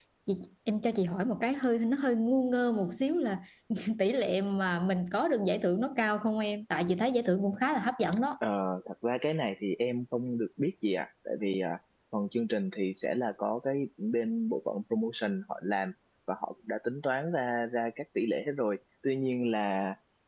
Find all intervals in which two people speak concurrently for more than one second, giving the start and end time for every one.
none

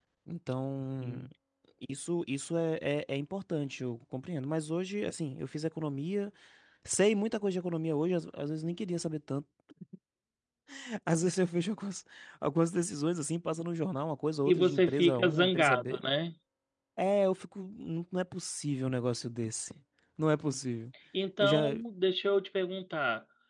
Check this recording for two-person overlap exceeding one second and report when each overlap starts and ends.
14.4-16.0

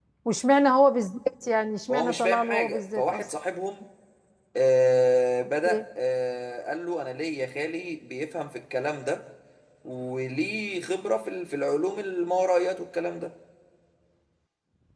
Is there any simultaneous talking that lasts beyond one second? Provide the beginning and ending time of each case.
1.9-3.2

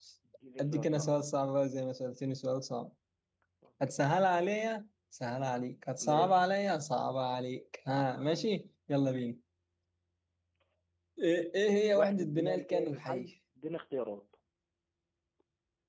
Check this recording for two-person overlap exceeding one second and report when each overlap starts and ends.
11.9-13.2

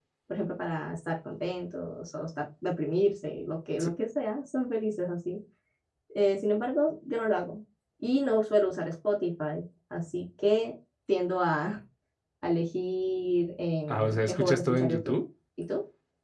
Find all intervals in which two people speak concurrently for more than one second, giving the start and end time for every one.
13.9-15.1

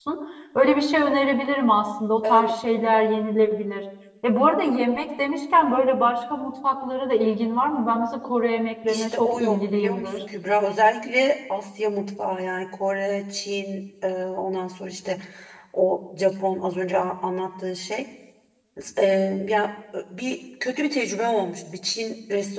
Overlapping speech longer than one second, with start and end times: 8.9-10.1

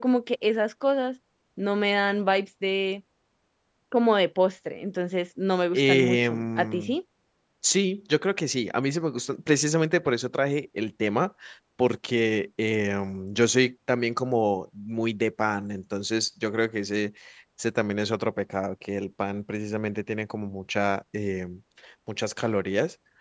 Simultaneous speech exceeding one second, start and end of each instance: 5.7-6.9

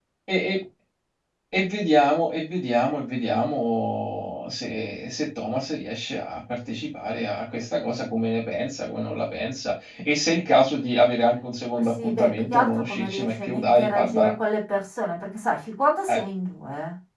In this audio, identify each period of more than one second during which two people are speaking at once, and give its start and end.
12.0-14.3

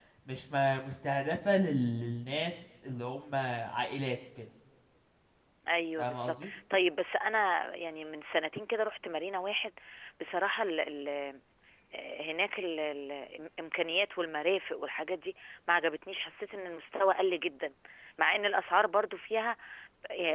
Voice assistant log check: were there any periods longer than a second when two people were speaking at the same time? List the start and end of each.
none

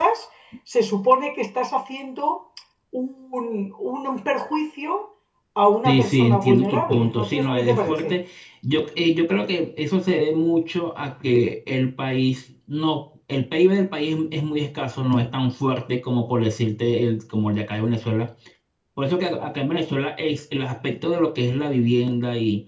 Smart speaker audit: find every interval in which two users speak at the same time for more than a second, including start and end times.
5.8-8.2

